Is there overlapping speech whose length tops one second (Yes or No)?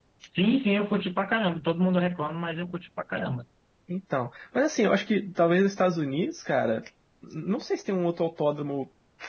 No